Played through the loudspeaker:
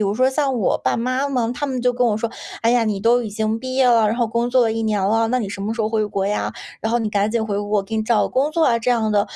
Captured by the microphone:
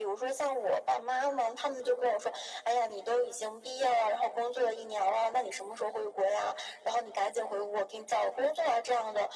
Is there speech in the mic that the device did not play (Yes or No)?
No